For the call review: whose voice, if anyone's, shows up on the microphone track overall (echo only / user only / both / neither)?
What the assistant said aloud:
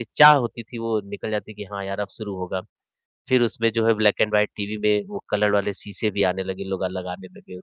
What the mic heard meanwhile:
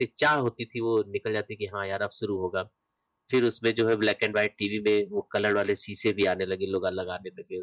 echo only